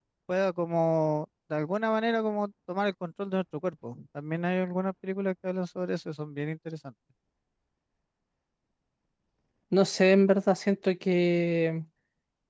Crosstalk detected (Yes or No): No